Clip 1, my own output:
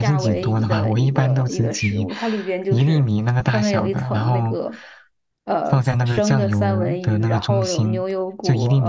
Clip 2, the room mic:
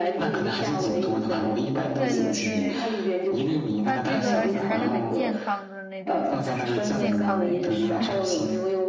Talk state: both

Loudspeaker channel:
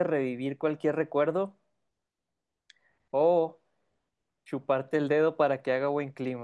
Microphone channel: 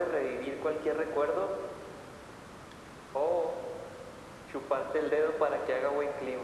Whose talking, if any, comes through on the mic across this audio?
echo only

